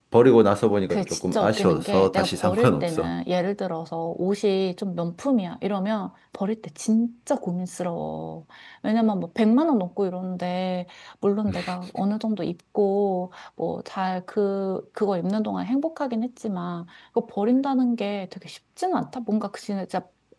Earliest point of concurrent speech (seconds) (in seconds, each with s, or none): 0.9 s